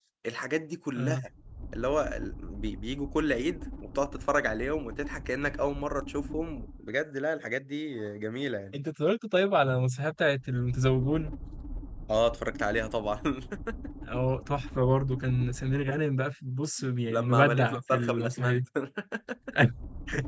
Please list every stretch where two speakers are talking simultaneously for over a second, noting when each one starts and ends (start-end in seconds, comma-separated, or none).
17.1-18.6